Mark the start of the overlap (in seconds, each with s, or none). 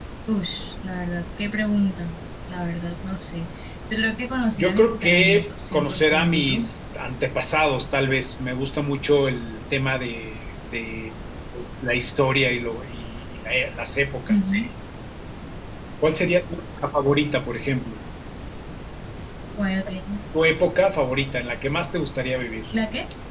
4.5 s